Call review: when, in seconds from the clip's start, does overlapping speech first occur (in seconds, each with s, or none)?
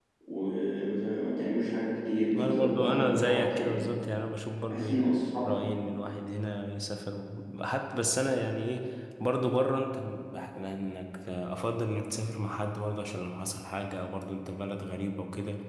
2.4 s